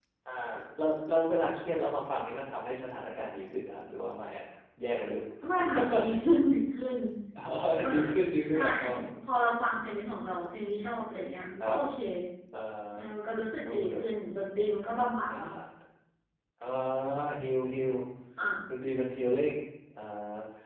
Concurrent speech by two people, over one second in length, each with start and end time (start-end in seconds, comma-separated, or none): none